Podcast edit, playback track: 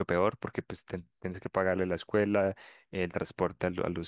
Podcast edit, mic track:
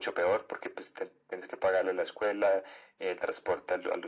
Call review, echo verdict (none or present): present